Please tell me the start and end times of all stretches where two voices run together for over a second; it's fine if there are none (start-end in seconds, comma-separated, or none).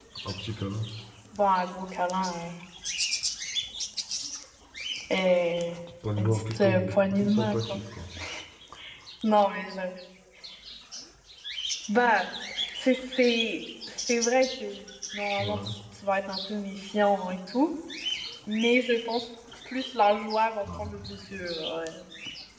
6.2-7.8